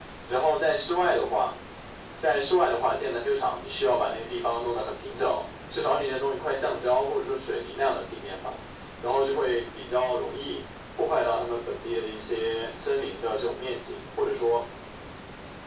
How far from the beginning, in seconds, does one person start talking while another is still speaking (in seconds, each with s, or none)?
none